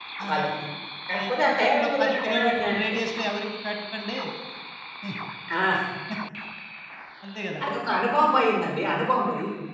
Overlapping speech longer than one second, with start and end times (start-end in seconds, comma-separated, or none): 1.1-2.9